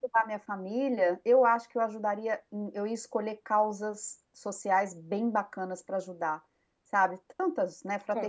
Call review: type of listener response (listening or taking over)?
listening